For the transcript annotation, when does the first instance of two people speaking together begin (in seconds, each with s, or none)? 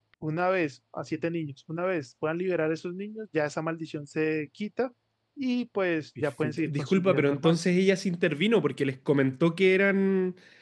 6.2 s